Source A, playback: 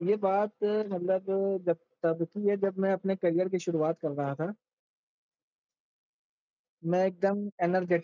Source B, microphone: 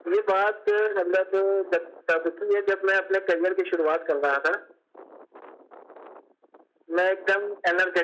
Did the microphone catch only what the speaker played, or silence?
Yes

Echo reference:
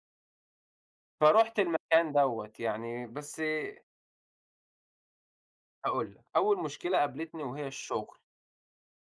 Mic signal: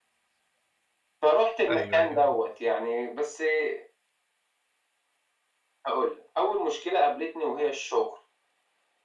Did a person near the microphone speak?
Yes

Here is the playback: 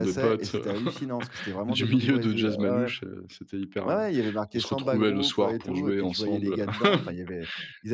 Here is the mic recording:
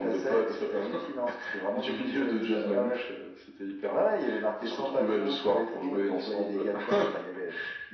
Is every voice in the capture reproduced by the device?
Yes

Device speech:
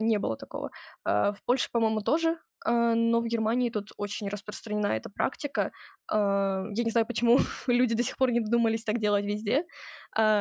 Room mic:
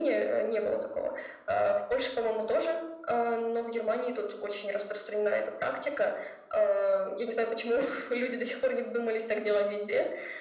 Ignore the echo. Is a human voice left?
No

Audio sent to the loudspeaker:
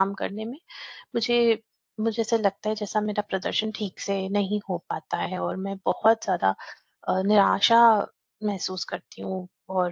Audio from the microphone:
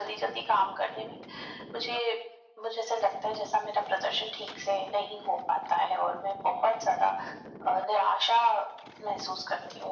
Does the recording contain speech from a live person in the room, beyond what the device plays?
No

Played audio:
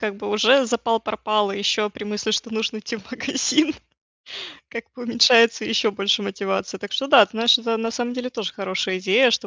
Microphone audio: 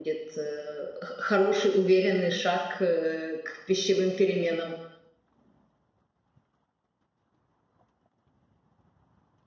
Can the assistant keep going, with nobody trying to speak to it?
No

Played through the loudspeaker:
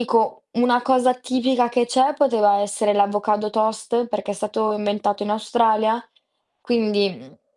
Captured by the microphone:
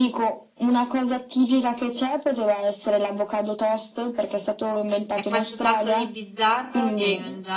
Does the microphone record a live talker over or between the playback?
Yes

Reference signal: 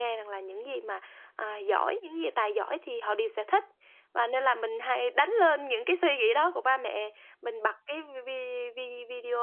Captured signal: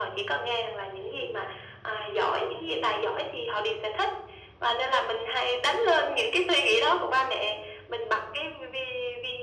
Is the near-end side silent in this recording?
Yes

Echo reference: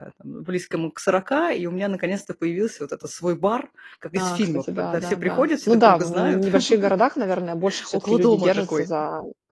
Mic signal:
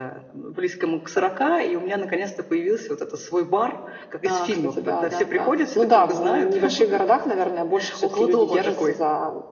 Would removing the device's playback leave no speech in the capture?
Yes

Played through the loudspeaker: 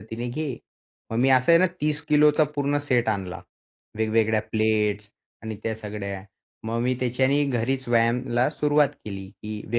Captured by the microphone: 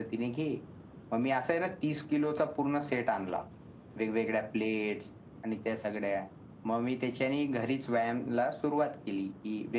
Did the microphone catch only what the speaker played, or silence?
Yes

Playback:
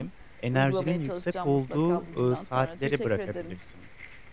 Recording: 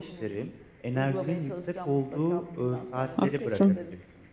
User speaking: Yes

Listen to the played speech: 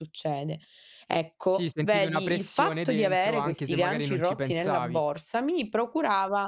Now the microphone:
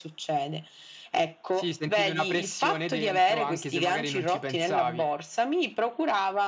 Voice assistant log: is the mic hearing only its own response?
Yes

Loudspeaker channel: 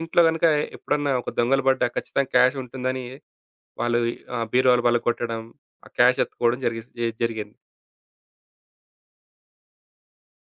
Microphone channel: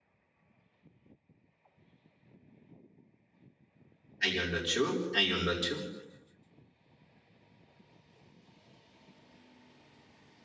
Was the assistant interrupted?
Yes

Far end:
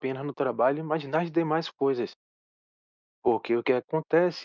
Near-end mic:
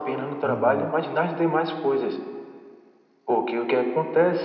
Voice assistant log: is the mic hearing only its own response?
No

